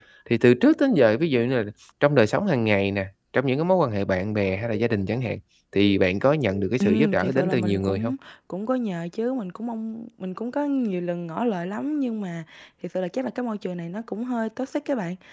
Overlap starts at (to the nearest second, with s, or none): 7 s